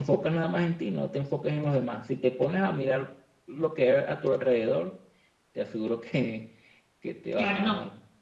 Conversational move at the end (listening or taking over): taking over